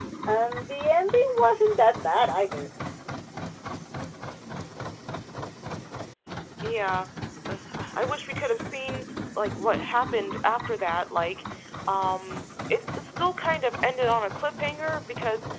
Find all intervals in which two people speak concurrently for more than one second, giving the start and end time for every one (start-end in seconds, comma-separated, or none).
none